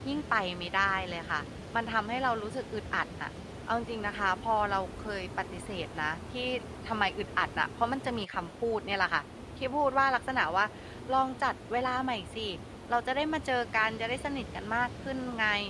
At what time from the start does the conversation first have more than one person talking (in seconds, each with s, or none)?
none